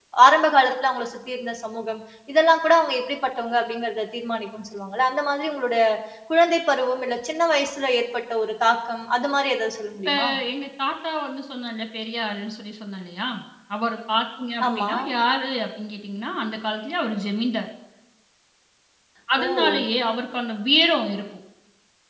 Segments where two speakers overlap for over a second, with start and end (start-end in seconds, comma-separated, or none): none